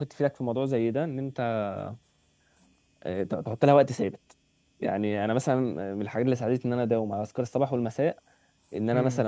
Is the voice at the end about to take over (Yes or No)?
No